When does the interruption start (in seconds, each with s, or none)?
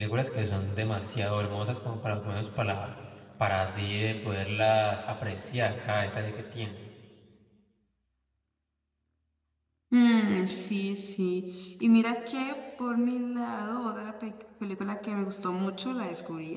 none